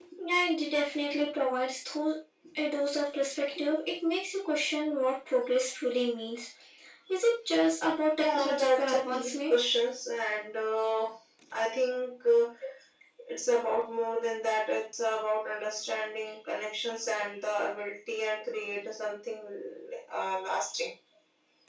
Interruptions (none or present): present